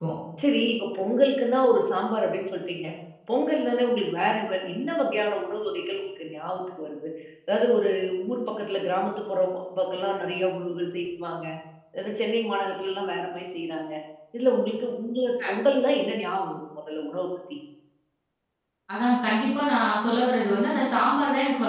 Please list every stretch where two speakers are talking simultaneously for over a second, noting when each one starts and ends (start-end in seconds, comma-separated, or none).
none